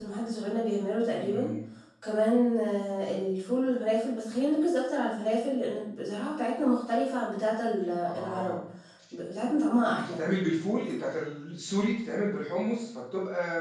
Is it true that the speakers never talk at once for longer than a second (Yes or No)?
Yes